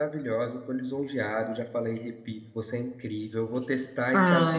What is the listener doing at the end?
taking over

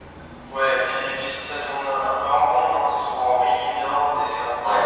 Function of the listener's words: taking over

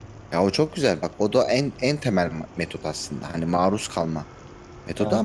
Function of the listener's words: listening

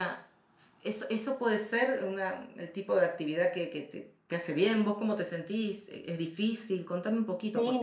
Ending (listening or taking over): taking over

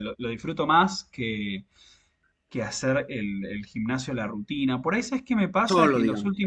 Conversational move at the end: listening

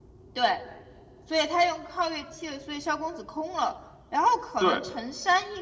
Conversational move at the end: listening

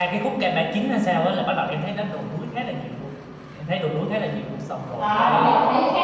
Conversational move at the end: taking over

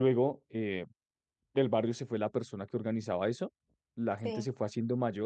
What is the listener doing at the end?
listening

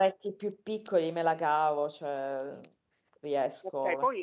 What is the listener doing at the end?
taking over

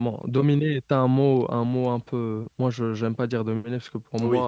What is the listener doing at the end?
listening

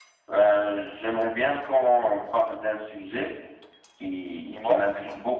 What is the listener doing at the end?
listening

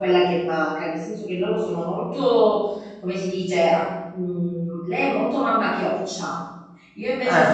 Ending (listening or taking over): listening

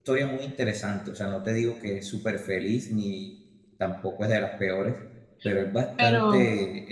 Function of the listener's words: listening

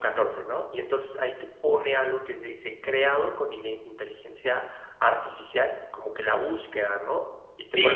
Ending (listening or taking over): taking over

